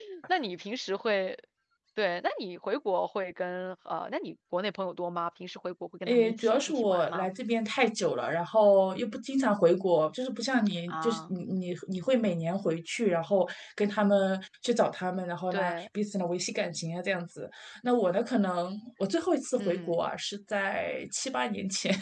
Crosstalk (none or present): present